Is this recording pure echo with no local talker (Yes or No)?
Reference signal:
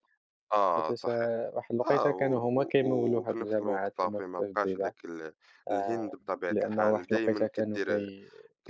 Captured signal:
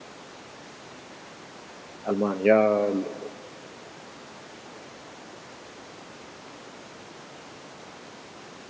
No